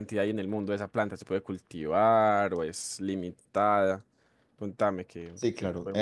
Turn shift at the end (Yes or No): Yes